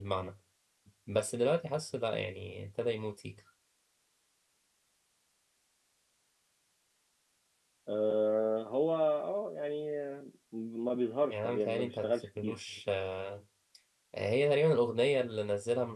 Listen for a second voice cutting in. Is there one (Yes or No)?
Yes